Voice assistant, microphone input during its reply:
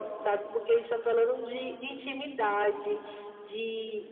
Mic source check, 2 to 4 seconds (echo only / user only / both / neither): echo only